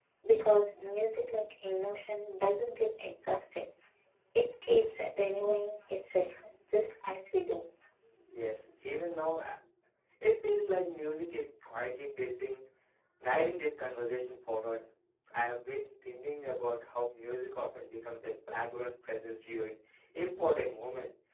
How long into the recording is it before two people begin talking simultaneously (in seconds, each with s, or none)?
none